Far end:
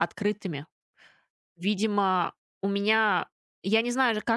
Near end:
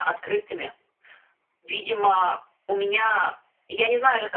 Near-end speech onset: none

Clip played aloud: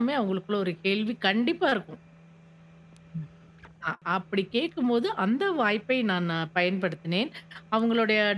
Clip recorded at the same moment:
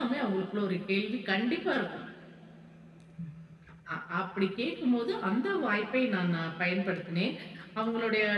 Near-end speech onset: none

